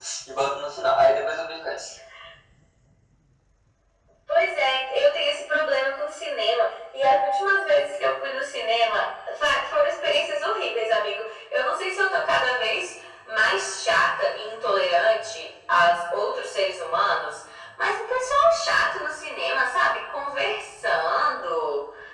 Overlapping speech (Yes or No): No